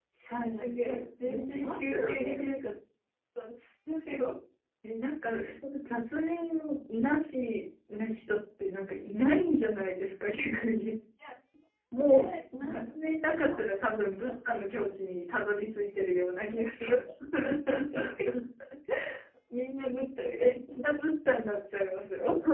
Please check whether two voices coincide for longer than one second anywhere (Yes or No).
Yes